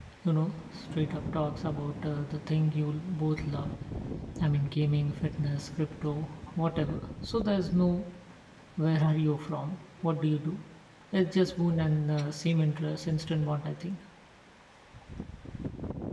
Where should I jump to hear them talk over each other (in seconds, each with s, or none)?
none